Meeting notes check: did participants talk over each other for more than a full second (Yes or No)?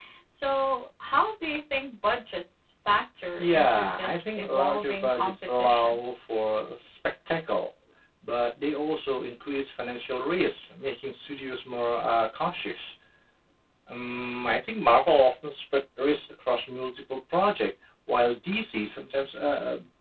Yes